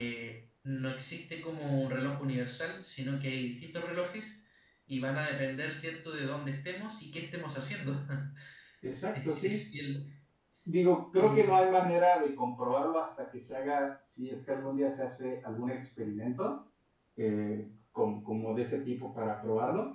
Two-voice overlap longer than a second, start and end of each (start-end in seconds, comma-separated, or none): none